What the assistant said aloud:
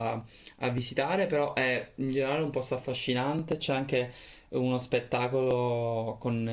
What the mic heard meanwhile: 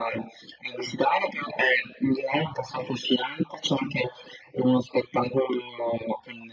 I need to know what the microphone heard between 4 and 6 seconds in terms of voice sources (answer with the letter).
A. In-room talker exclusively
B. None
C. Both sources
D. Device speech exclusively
D